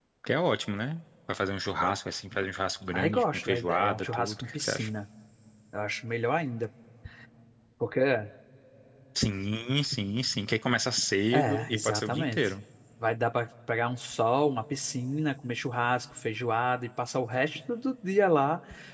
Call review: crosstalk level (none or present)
present